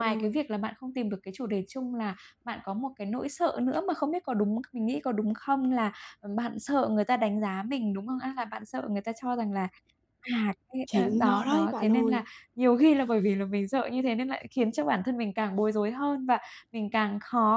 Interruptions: present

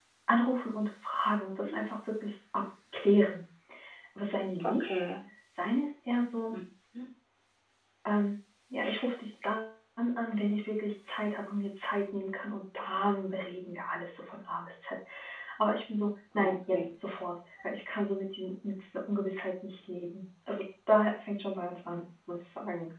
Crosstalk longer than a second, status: none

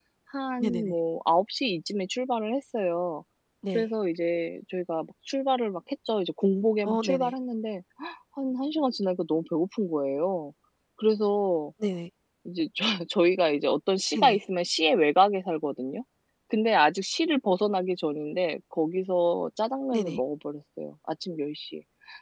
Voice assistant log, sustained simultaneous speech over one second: none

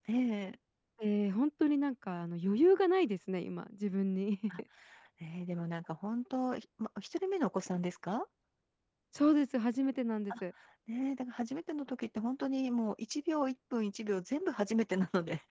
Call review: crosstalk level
none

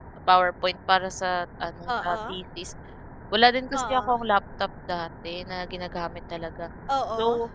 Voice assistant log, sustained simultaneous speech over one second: none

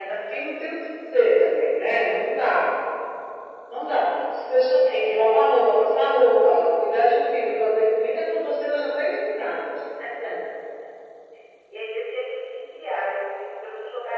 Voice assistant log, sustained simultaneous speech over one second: none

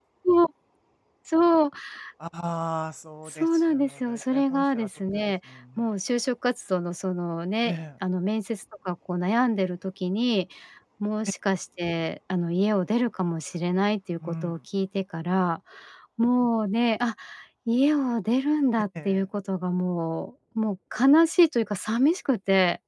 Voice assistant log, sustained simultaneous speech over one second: present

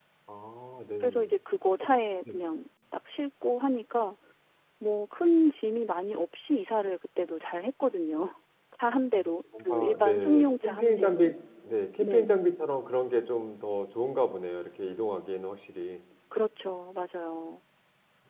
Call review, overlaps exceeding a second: present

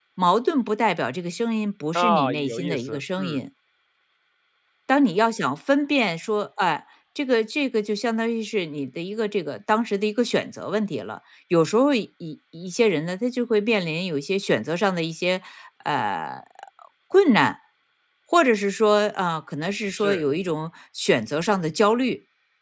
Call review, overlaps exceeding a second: present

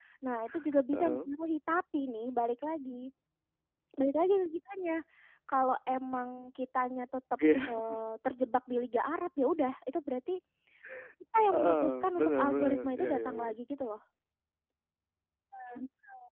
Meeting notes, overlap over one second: present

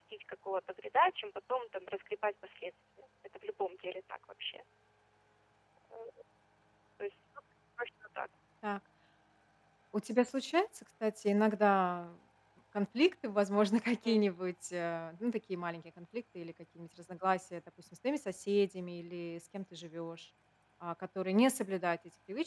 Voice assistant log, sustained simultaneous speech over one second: none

